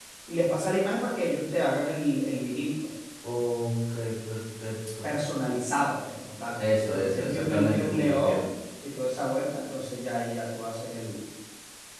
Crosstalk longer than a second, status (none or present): present